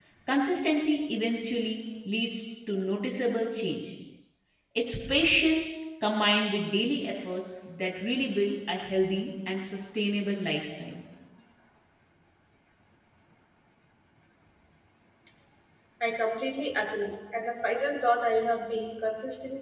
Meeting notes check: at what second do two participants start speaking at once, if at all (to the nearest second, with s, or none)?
none